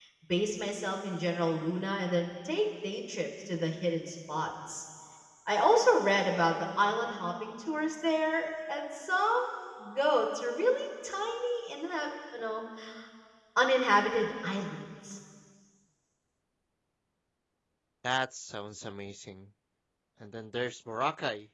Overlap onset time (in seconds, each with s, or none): none